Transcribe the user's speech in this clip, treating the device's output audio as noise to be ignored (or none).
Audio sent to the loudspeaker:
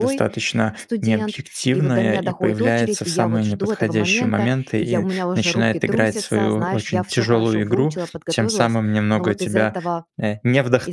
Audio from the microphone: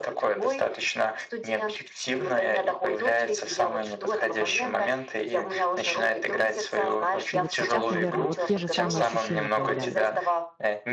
И вот сейчас, наверное, вот те же самые ощущения появляются.